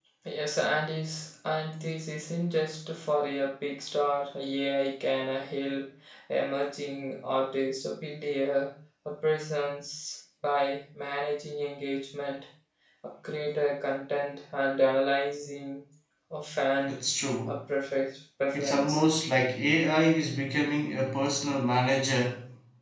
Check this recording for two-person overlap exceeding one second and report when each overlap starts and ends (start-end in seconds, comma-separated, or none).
none